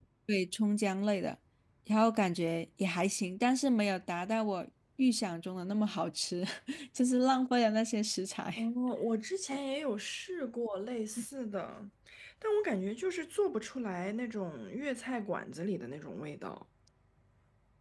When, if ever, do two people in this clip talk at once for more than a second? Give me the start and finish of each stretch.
none

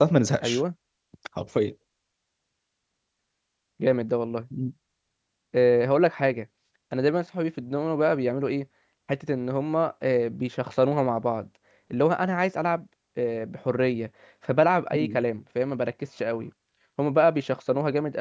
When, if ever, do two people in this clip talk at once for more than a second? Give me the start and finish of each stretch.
none

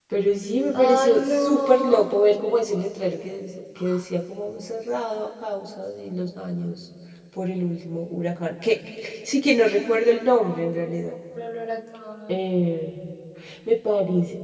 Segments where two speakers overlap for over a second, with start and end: 0.8-2.1

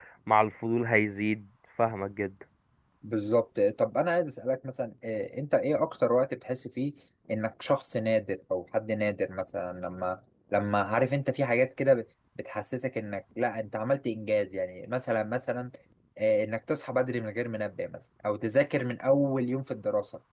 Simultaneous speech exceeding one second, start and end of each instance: none

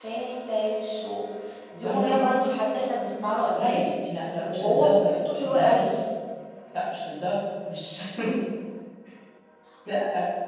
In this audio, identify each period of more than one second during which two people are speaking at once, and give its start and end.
4.5-5.9

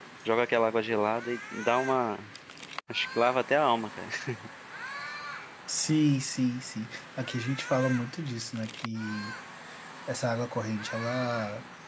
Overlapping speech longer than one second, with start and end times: none

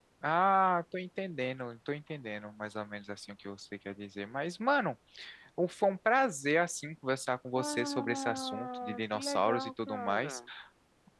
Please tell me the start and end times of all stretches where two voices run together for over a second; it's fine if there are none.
7.5-10.4

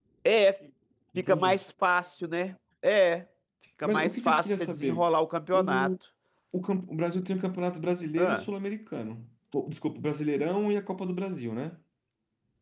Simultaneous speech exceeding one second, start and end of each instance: 3.8-5.0

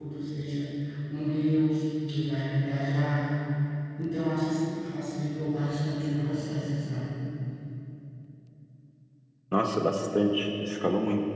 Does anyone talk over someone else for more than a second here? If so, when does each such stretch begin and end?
none

